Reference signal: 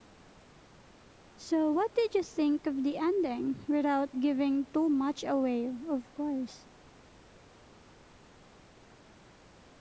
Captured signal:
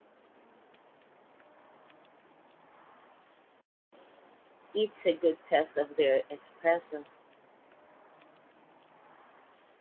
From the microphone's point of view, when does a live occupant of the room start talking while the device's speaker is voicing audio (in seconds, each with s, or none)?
4.7 s